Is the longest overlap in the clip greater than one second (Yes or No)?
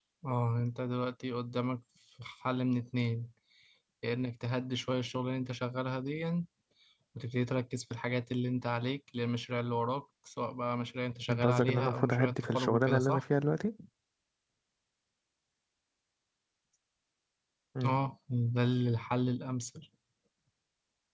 Yes